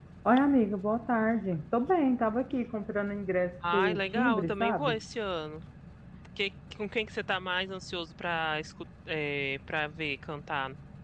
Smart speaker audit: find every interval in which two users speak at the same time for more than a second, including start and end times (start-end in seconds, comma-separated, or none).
3.7-5.0